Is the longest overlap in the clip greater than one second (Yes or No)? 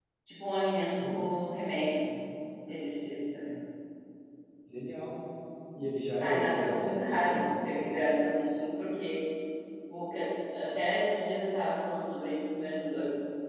Yes